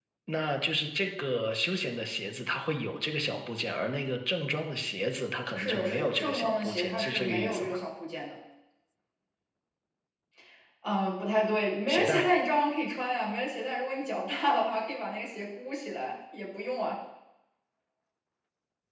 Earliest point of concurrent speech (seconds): 5.5 s

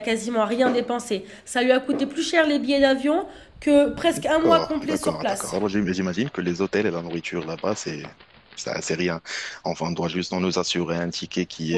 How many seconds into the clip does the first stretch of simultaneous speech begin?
4.1 s

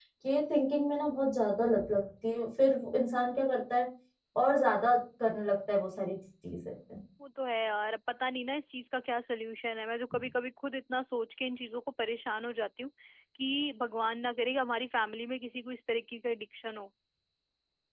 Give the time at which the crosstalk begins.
none

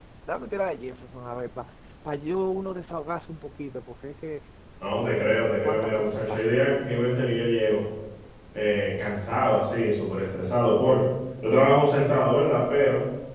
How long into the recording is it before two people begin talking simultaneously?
5.0 s

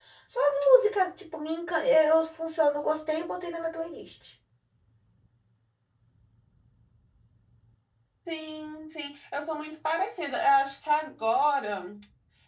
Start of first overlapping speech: none

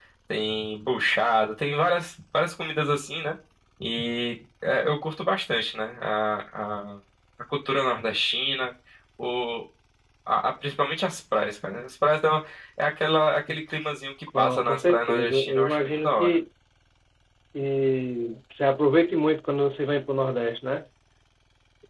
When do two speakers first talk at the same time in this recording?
14.3 s

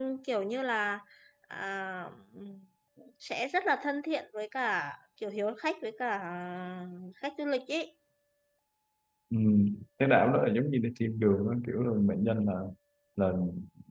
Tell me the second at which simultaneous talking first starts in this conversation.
none

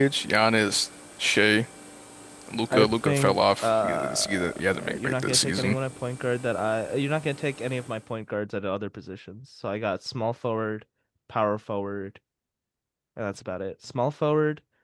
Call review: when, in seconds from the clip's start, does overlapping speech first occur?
2.7 s

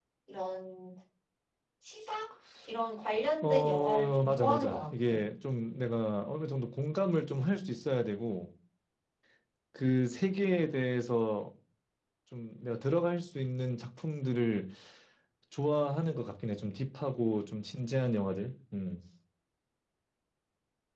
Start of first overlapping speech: 3.4 s

